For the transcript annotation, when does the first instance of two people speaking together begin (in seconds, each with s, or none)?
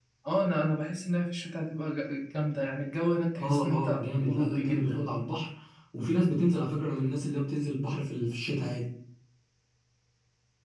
3.4 s